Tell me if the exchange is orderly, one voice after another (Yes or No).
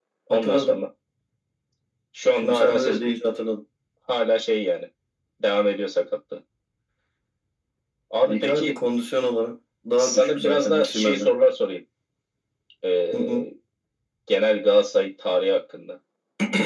No